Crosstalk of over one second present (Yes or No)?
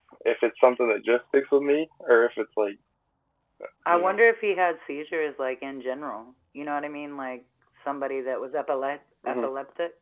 No